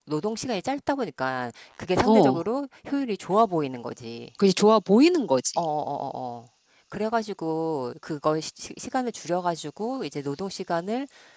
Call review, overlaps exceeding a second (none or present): none